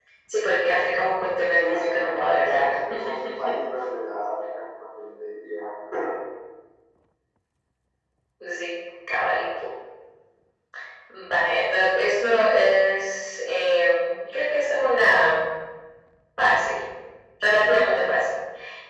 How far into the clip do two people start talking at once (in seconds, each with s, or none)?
1.5 s